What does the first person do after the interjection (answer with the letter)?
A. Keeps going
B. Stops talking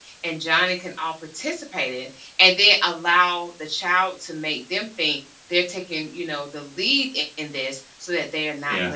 A